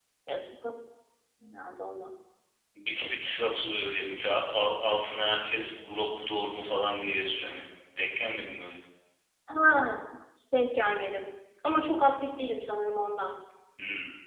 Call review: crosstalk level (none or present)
none